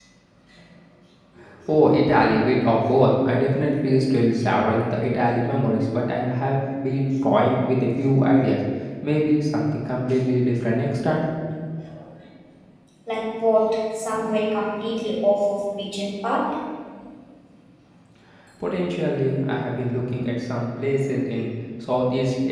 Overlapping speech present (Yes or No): No